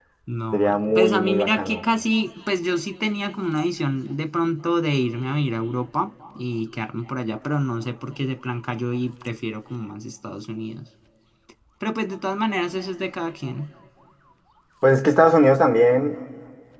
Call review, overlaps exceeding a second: present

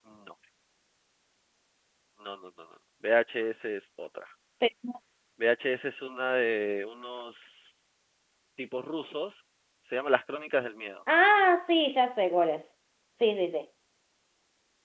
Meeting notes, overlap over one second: none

